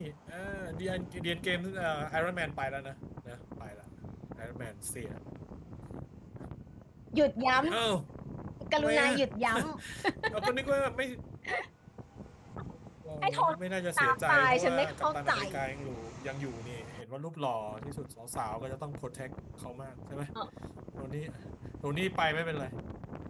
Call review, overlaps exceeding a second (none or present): present